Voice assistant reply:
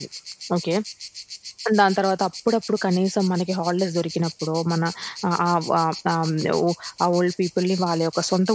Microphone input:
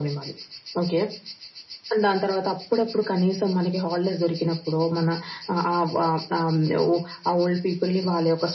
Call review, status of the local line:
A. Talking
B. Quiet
B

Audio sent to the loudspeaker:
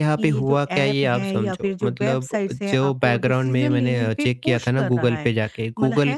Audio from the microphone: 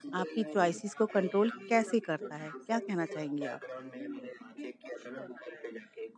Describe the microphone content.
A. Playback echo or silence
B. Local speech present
B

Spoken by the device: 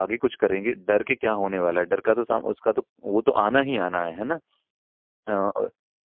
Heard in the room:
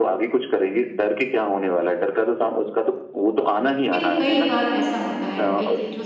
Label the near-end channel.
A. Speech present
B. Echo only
A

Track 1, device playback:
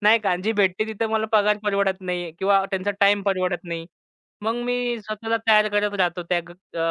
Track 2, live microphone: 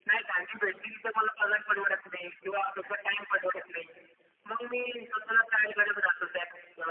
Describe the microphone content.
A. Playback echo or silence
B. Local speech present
A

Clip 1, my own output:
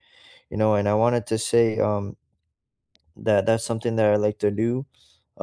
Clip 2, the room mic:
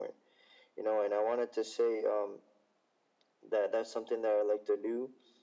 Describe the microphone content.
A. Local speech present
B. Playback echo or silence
B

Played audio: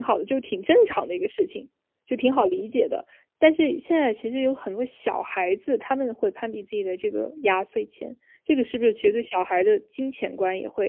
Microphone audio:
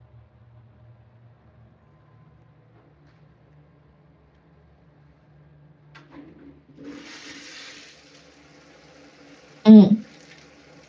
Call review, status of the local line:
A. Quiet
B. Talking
B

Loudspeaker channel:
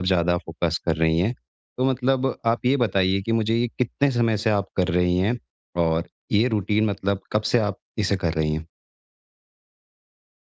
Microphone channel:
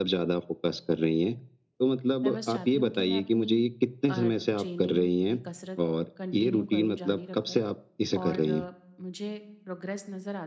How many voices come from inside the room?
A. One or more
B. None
A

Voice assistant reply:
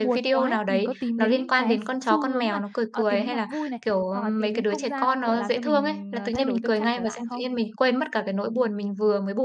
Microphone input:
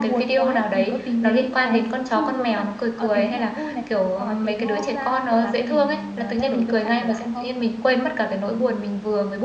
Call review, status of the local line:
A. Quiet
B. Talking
B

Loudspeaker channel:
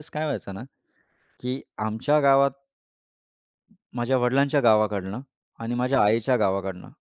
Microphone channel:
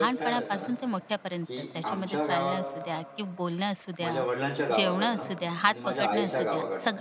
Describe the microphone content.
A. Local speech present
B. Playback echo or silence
A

